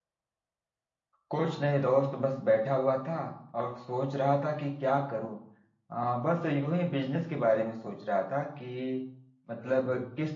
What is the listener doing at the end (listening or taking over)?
listening